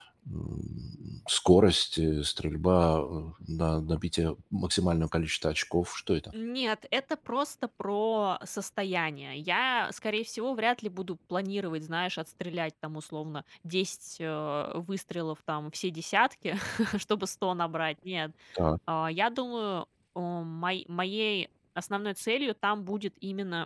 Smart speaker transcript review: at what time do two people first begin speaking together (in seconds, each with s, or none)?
none